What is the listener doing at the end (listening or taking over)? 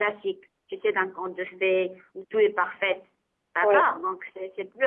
listening